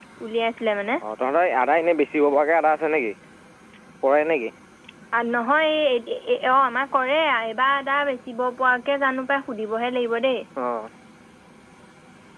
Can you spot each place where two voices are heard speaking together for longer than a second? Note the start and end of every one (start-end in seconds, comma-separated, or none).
none